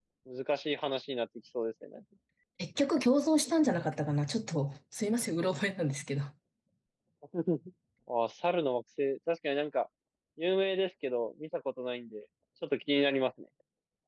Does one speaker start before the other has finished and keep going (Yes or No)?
No